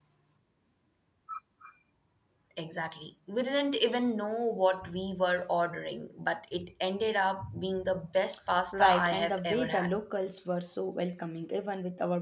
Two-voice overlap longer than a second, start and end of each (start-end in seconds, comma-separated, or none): 8.7-9.9